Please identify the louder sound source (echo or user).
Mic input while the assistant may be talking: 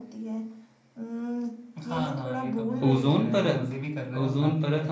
user